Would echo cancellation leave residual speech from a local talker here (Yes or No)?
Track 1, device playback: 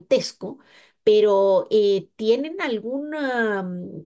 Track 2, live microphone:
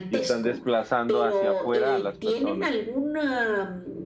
Yes